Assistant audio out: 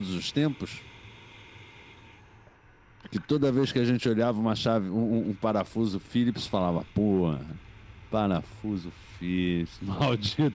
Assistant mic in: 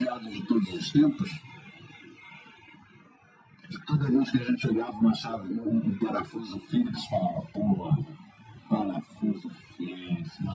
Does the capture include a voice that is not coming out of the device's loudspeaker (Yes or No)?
No